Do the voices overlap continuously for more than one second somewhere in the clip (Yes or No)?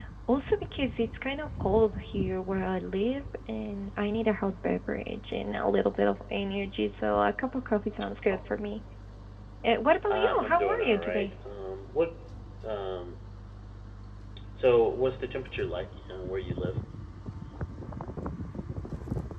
Yes